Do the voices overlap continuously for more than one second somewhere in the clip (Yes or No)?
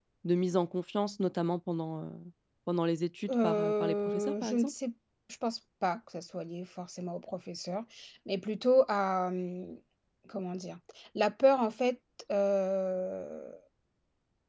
Yes